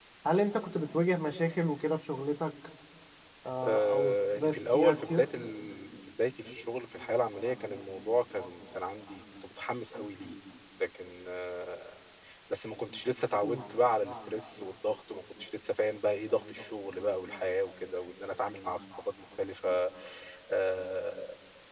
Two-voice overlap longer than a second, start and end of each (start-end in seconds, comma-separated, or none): 3.6-5.2